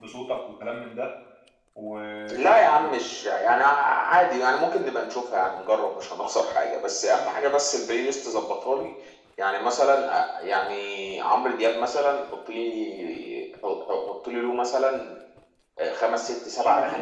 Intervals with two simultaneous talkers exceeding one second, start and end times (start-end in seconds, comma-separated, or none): none